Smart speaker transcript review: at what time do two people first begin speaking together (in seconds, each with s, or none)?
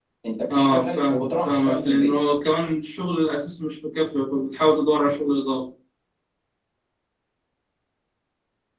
0.5 s